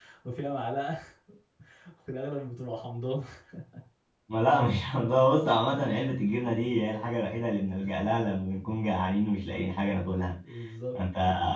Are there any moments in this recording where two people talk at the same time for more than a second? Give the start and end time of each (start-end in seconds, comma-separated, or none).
none